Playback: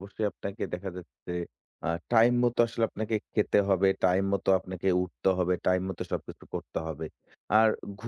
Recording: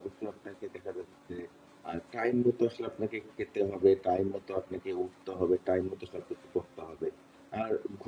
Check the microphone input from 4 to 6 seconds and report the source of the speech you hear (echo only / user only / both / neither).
echo only